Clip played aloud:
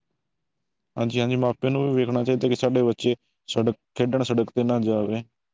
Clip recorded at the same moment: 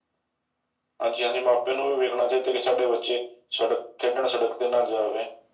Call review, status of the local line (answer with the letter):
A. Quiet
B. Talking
A